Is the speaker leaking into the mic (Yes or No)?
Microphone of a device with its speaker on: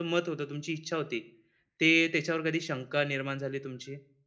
No